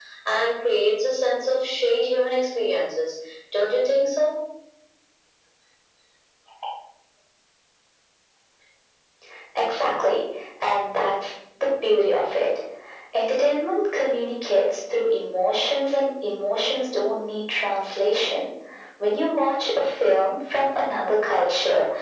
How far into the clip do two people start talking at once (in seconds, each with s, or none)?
none